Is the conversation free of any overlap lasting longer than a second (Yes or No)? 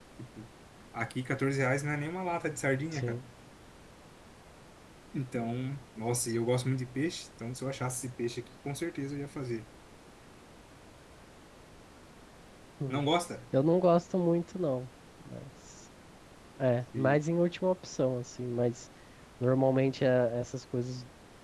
Yes